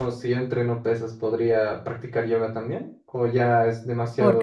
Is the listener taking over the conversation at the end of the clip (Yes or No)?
Yes